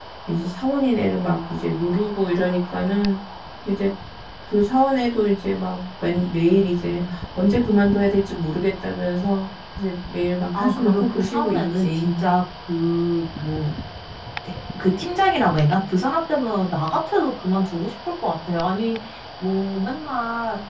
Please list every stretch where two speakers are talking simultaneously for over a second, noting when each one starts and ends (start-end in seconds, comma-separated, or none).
10.5-12.2